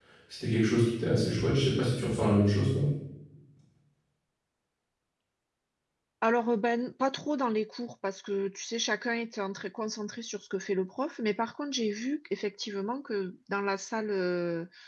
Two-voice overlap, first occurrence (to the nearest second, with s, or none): none